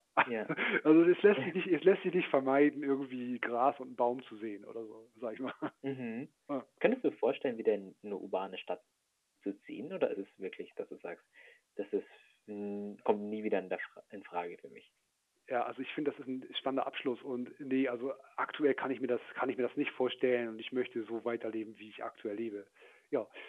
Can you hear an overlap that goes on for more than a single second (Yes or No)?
No